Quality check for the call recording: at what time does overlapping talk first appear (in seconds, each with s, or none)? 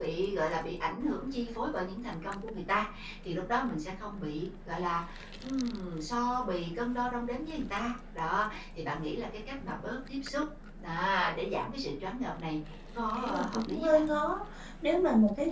13.0 s